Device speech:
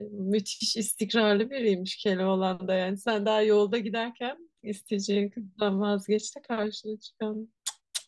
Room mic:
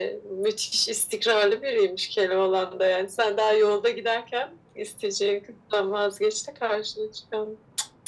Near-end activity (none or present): none